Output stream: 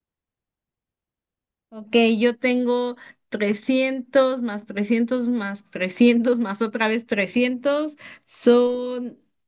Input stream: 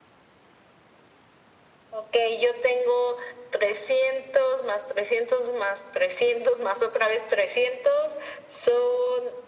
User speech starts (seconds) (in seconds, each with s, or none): none